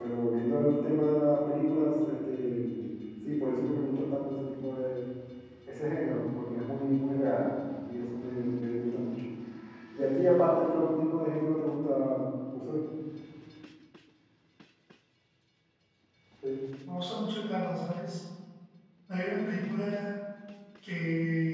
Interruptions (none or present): none